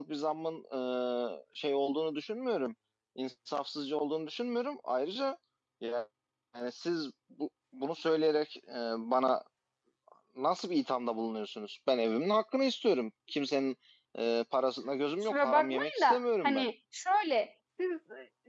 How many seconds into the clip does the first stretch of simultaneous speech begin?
15.3 s

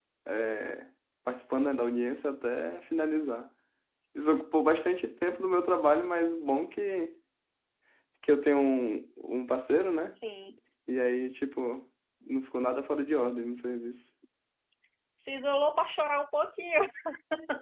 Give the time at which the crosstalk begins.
none

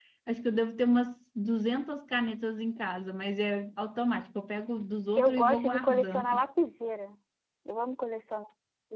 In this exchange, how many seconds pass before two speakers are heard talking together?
5.2 s

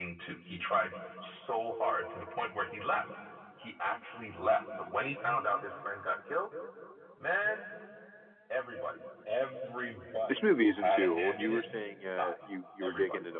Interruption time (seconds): 10.3 s

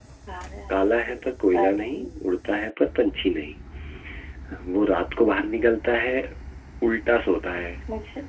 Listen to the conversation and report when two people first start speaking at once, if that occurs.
0.7 s

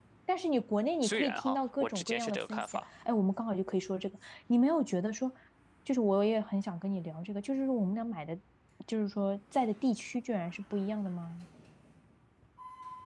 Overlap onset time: 1.0 s

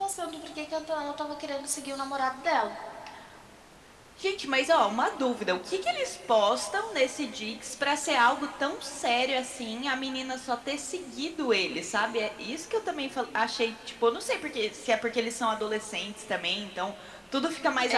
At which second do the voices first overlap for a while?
none

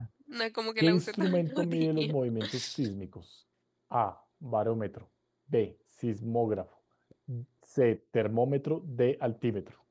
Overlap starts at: 0.8 s

